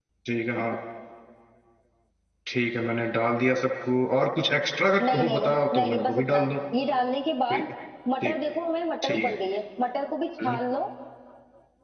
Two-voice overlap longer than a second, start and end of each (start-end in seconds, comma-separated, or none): 5.0-6.5